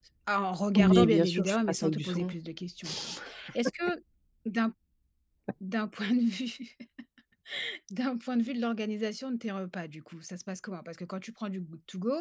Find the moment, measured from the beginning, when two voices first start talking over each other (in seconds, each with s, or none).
0.8 s